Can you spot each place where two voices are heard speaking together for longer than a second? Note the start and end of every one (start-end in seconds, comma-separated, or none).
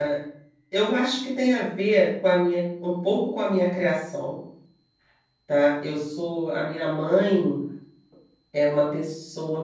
none